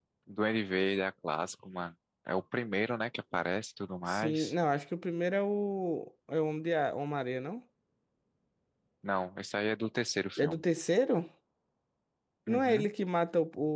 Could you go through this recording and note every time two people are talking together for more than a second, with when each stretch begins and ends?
none

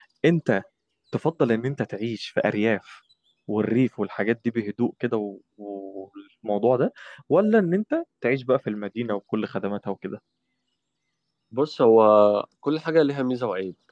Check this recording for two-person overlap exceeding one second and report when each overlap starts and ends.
none

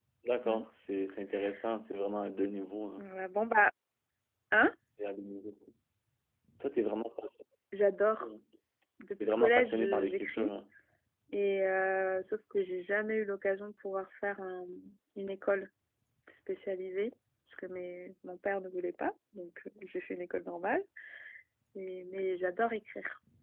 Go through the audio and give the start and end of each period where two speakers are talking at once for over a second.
9.2-10.5

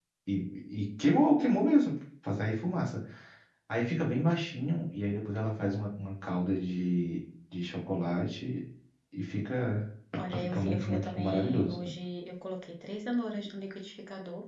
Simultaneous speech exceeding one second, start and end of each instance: 10.4-11.7

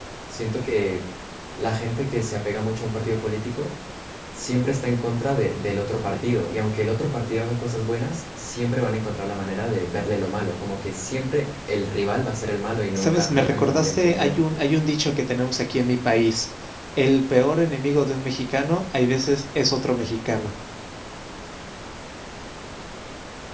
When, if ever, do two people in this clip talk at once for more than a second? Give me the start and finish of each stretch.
12.9-14.4

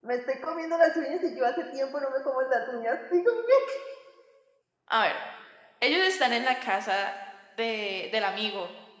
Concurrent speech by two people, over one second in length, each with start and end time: none

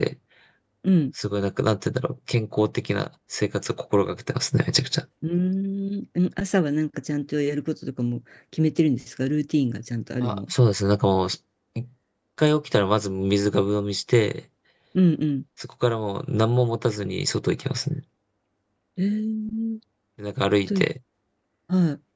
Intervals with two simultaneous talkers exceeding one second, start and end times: none

